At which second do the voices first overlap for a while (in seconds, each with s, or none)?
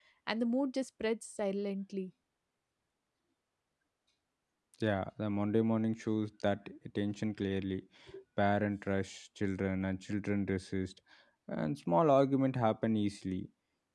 none